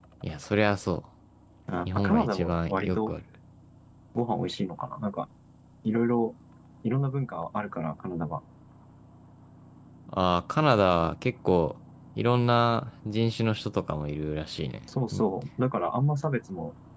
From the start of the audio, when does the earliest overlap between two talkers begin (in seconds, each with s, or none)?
1.9 s